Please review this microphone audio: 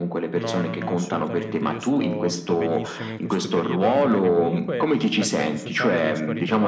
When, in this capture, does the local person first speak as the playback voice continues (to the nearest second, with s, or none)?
0 s